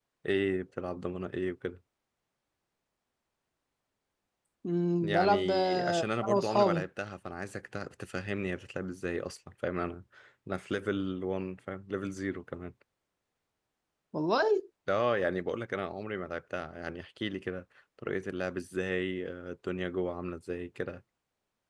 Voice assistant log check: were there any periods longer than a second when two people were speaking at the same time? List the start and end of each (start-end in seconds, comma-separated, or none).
5.0-6.9